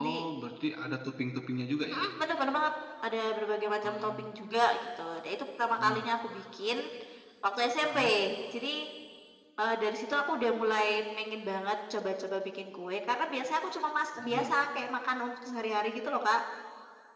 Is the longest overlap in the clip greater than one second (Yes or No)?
No